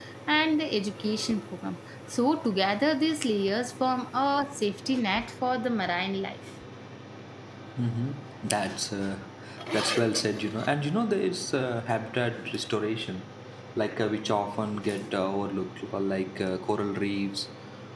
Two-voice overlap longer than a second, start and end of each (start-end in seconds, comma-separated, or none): none